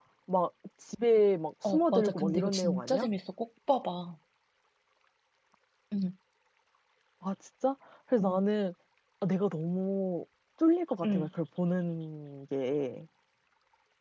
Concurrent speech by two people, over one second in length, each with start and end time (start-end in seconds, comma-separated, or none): 1.6-3.1